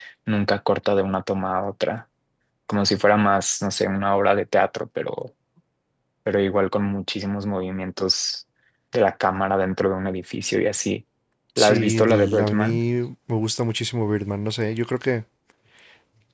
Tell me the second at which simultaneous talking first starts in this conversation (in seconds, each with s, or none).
11.6 s